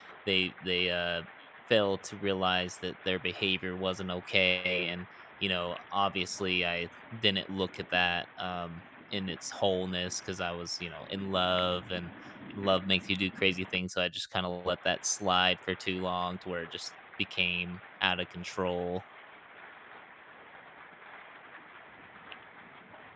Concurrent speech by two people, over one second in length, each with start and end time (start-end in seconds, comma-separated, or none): none